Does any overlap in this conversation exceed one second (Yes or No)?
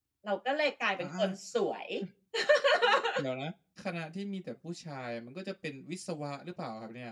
No